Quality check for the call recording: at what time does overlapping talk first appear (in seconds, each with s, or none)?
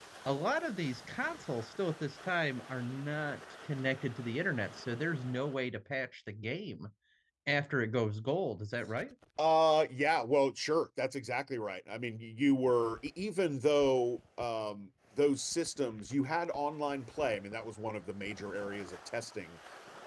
none